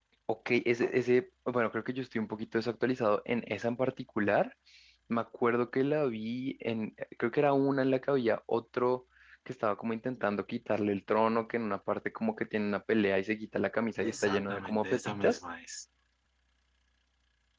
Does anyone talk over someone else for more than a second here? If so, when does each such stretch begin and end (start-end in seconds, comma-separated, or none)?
14.0-15.4